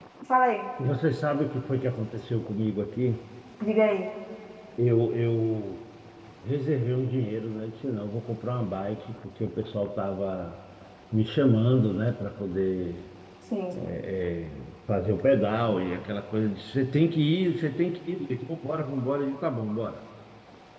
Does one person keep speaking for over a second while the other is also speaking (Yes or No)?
No